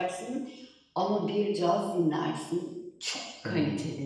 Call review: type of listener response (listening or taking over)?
taking over